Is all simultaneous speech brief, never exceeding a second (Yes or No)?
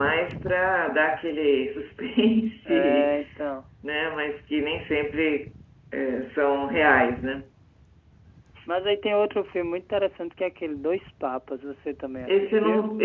Yes